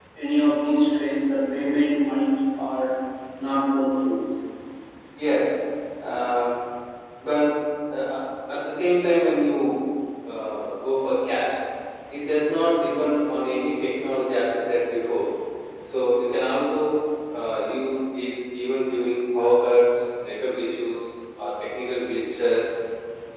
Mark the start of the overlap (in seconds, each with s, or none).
none